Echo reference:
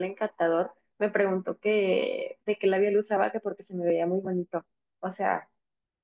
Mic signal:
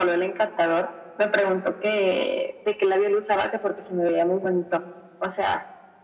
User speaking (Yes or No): No